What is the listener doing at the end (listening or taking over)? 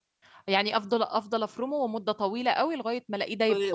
taking over